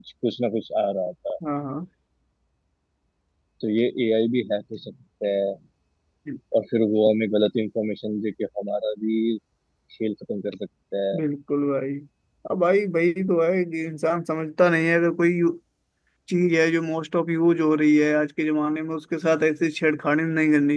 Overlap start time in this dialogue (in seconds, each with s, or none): none